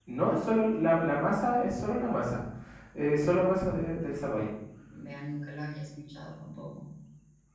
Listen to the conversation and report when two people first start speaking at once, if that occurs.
none

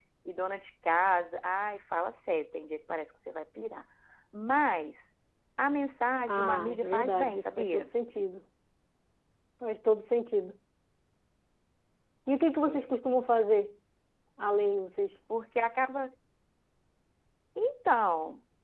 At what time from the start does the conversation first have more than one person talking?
6.3 s

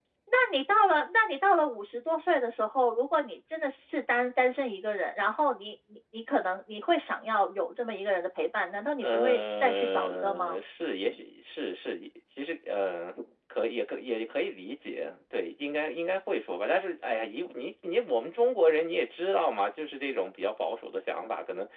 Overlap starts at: 9.0 s

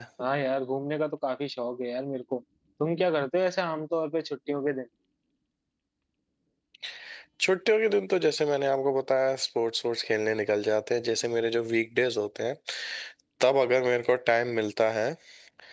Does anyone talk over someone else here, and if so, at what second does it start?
none

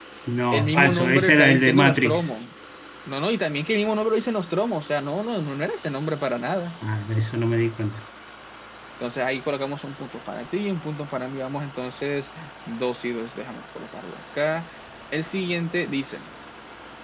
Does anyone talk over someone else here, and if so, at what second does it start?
0.5 s

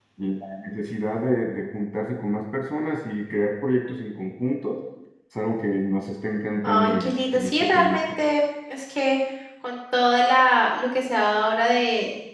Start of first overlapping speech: 6.6 s

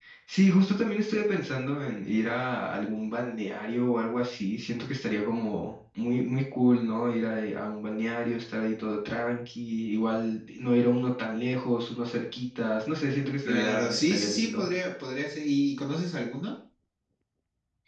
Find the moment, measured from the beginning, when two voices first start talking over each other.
13.4 s

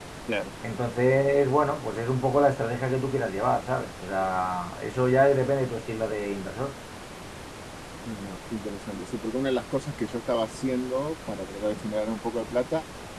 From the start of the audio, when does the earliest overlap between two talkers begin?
none

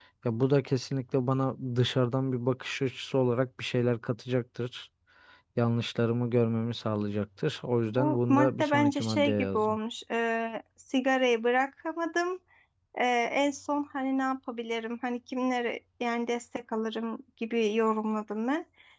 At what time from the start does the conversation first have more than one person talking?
7.9 s

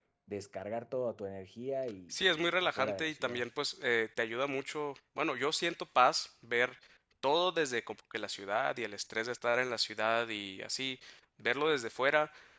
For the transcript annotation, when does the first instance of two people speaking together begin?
2.1 s

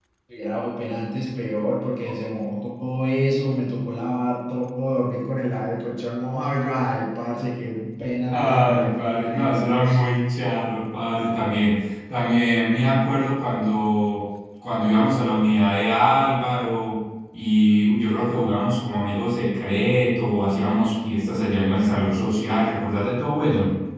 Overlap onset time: 8.3 s

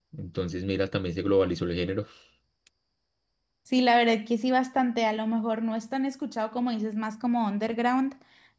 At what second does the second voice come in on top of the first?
none

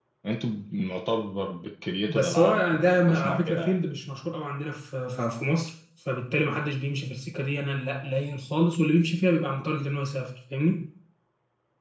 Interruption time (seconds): 2.1 s

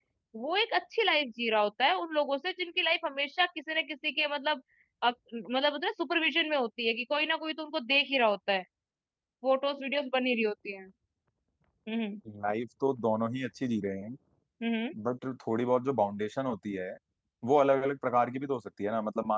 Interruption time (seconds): none

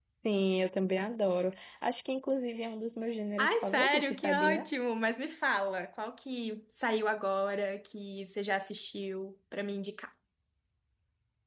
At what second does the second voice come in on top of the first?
3.4 s

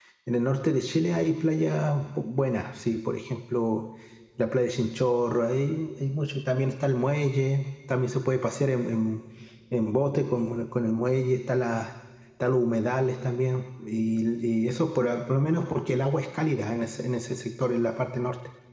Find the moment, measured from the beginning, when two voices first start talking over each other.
none

